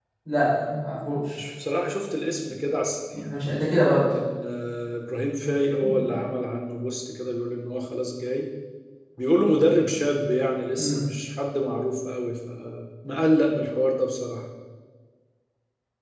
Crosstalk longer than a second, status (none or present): none